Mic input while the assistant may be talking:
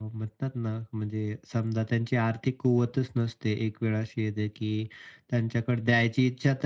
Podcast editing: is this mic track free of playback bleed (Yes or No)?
Yes